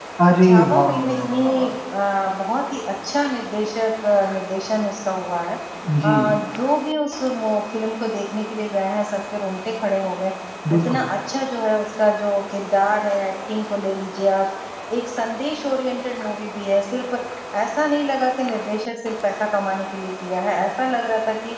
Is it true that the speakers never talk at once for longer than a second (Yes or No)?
No